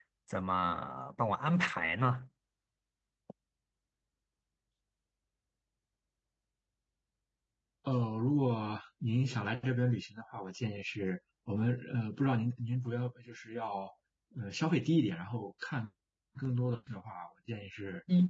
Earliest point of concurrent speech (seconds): none

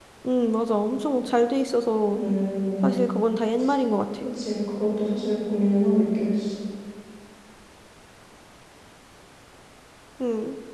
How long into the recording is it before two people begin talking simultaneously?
none

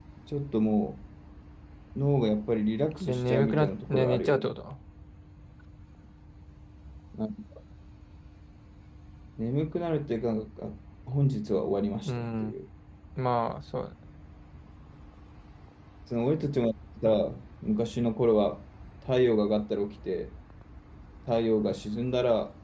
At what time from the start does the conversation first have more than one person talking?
3.0 s

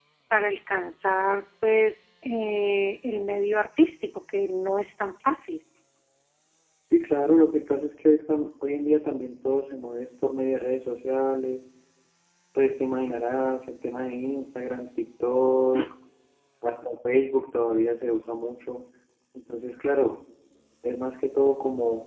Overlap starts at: none

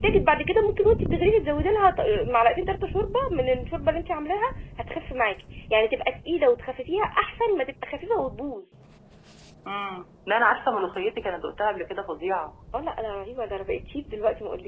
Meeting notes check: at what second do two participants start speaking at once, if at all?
none

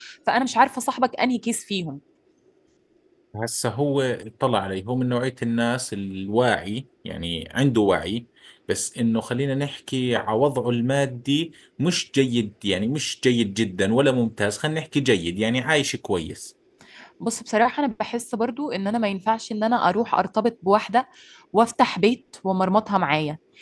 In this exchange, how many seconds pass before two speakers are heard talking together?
none

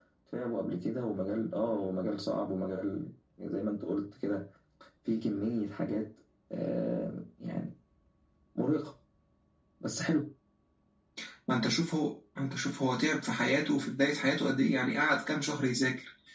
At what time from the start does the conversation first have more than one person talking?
none

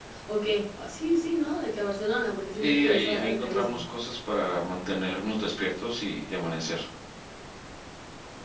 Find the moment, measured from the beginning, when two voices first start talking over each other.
2.5 s

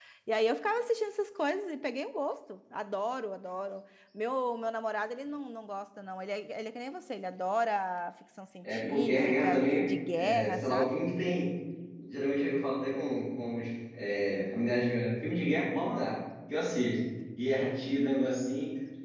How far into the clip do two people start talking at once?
8.6 s

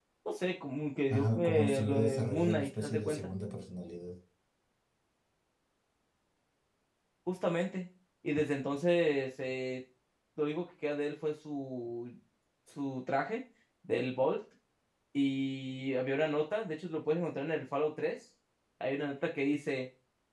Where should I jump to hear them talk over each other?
1.1 s

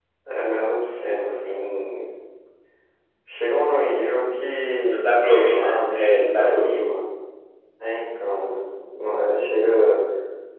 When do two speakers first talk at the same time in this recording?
4.9 s

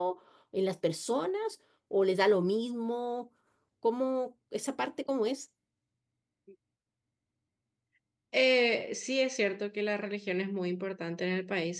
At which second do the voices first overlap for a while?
none

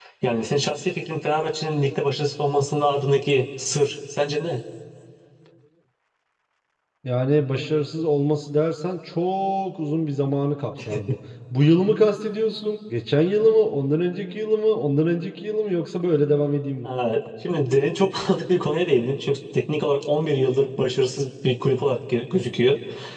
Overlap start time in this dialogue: none

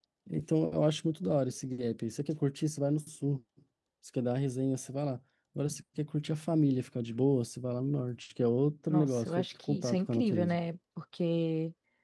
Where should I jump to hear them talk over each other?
8.9 s

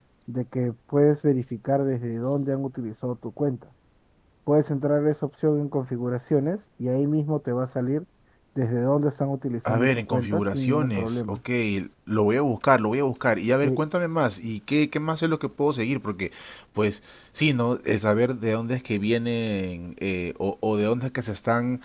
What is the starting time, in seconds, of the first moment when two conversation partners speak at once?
9.7 s

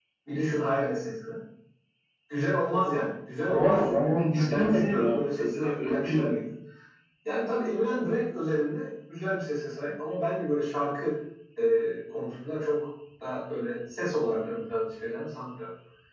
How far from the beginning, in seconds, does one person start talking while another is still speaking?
3.5 s

